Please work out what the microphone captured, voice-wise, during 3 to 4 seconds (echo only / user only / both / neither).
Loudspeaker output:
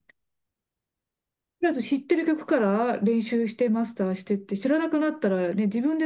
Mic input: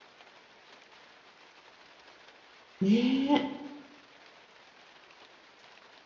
user only